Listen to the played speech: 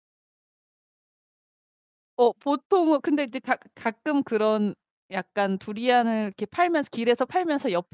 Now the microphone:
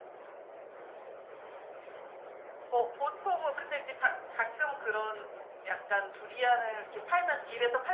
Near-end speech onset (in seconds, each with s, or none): none